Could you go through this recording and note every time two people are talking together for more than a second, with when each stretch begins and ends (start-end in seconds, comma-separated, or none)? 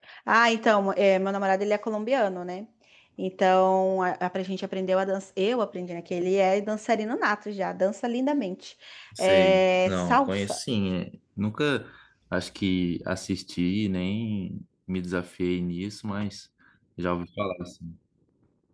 9.2-10.6